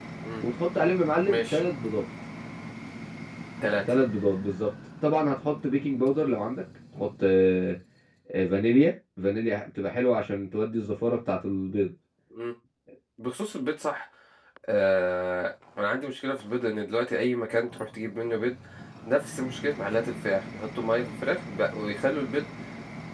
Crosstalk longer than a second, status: none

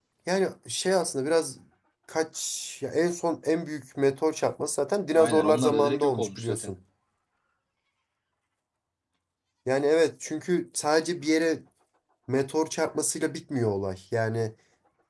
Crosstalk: present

